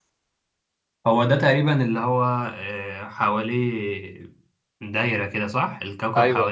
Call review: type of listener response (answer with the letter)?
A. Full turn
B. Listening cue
B